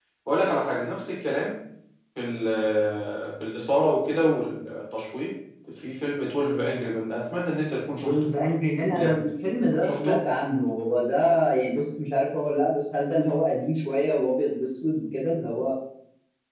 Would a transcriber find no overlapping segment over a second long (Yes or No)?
Yes